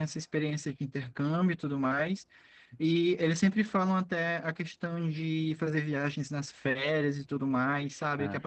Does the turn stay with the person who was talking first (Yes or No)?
Yes